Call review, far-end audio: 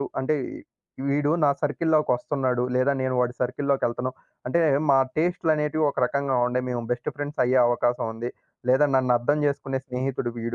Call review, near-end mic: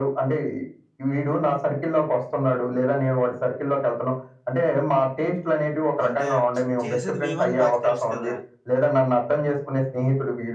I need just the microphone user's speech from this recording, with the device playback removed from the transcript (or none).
అంటే చేసేది మేమని మాకు తెలుసు కదా!